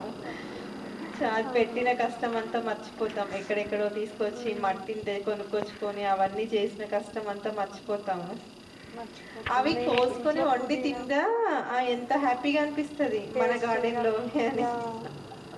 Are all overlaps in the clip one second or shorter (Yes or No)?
No